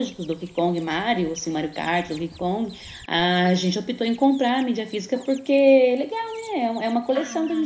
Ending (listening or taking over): taking over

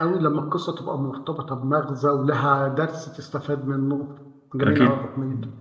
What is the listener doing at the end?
taking over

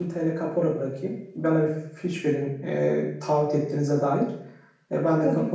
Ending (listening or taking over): listening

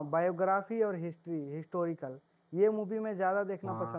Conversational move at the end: listening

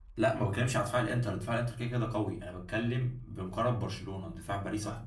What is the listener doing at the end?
taking over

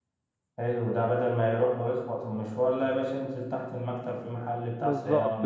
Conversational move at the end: taking over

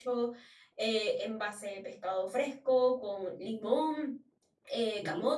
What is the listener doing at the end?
listening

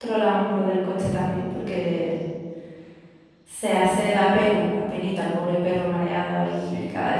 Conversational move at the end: taking over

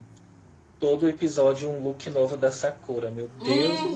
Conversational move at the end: taking over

